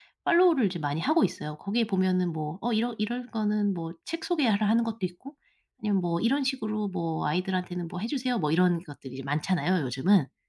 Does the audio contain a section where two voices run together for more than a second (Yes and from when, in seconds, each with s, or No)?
No